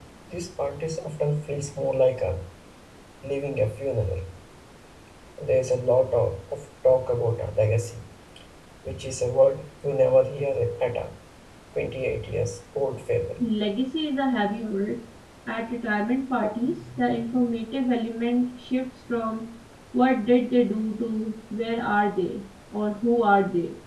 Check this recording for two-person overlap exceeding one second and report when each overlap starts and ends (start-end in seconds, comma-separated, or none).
none